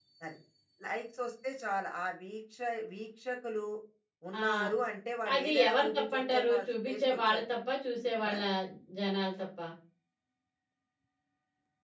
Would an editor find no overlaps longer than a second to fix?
No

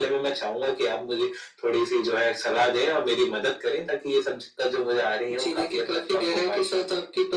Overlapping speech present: Yes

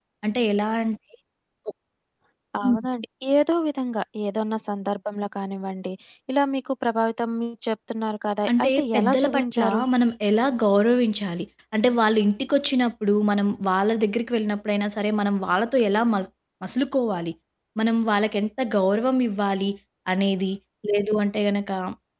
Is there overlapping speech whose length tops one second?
Yes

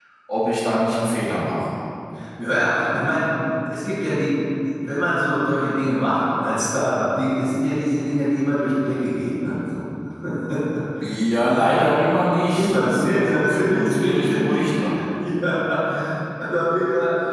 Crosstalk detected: Yes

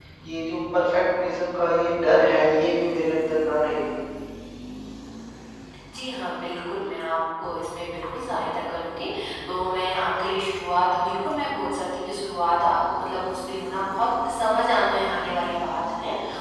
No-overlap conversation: Yes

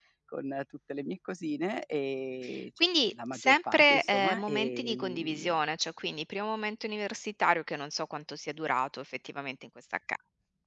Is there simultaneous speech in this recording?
Yes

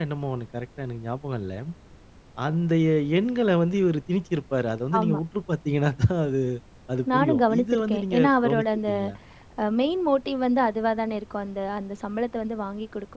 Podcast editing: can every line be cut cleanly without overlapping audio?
No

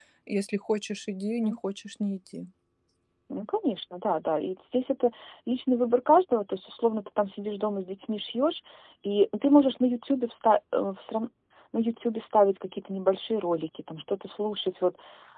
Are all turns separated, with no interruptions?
Yes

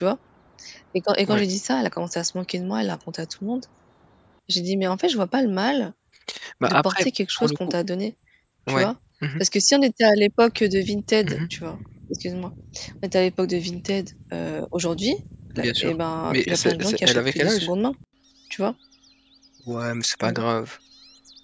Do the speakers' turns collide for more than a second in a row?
Yes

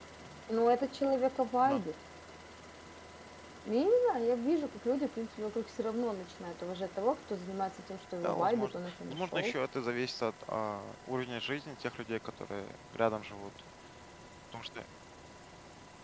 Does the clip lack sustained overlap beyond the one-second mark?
No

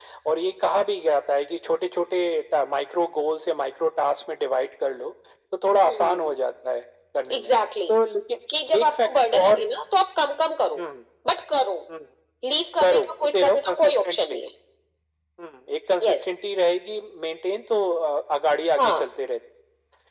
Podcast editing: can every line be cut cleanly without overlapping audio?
No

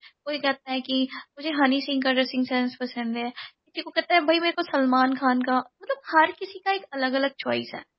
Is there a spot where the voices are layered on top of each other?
No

